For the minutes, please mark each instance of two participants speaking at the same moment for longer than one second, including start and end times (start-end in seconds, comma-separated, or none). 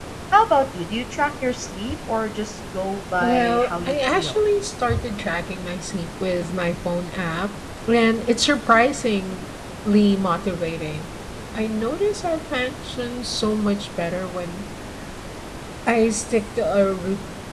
3.2-4.4